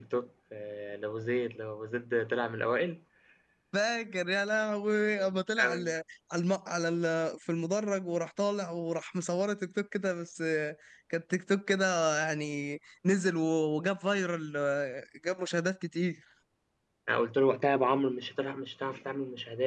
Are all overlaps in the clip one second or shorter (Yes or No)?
Yes